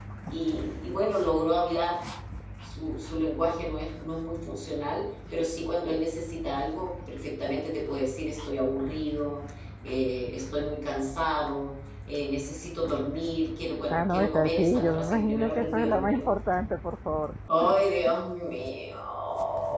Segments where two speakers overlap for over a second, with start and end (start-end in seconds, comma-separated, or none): 13.9-16.3